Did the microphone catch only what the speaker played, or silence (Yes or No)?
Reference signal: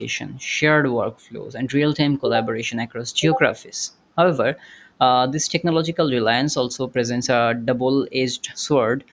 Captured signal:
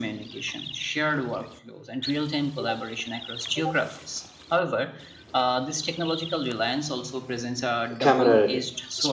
No